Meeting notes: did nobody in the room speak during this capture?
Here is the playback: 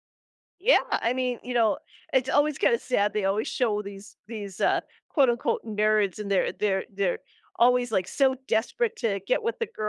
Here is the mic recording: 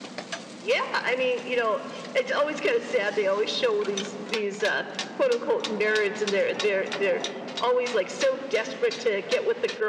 Yes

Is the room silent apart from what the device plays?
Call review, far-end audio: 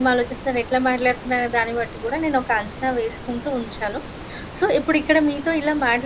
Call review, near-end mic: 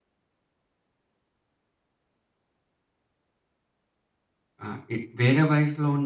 No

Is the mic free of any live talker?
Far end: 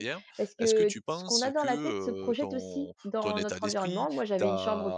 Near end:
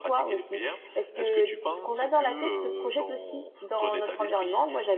Yes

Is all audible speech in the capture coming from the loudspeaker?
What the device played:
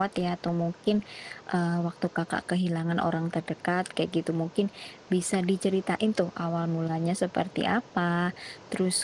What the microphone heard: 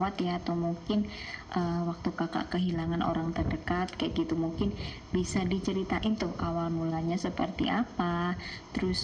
Yes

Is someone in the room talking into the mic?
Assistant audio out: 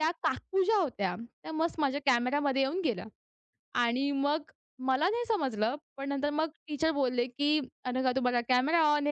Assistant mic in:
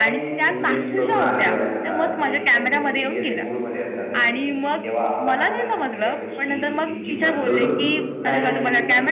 Yes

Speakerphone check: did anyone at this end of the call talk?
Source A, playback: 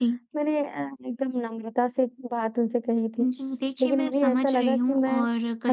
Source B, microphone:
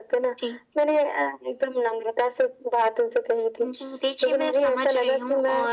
No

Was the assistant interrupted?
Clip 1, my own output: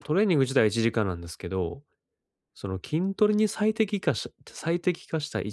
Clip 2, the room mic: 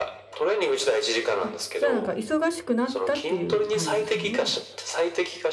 Yes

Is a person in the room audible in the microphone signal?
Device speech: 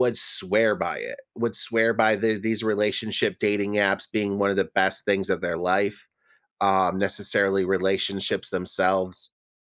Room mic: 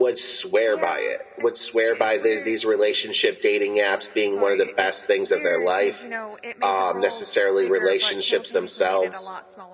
Yes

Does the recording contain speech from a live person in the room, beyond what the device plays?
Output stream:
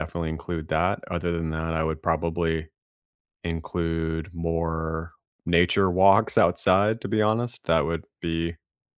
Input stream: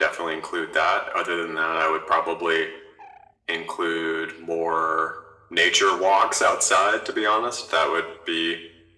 No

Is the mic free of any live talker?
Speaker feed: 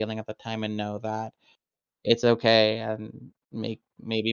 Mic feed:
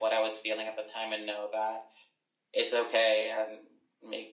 Yes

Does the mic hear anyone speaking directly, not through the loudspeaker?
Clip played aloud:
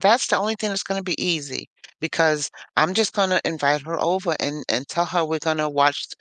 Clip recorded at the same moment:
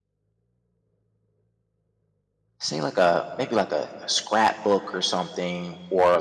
Yes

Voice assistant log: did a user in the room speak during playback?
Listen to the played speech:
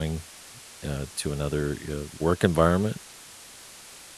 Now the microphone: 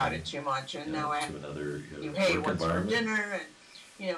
Yes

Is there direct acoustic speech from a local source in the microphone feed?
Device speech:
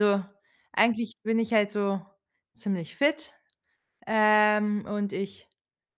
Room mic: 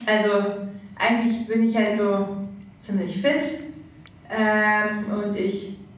No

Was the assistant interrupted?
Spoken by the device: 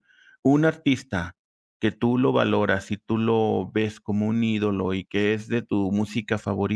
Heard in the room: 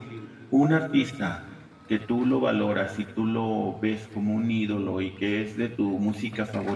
No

